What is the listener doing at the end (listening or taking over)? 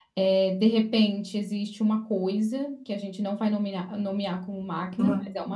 listening